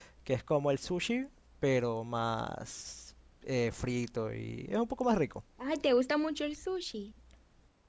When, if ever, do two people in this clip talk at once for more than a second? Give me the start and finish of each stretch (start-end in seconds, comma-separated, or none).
none